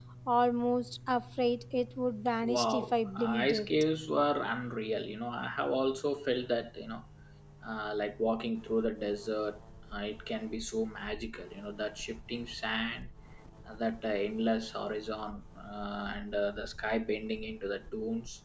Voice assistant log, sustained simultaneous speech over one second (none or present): present